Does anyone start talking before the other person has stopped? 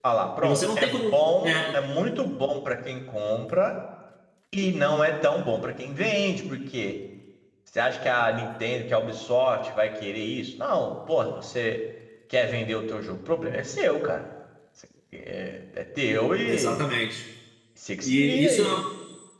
Yes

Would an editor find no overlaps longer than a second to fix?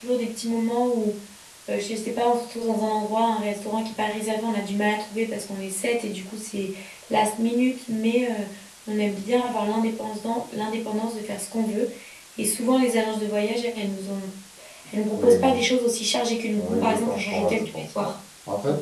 No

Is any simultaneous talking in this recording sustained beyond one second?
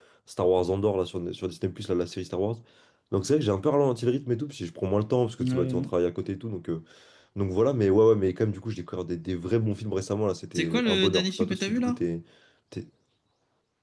Yes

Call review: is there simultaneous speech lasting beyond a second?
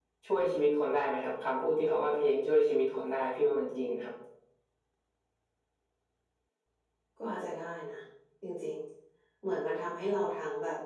No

